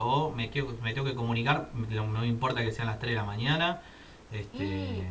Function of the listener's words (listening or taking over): taking over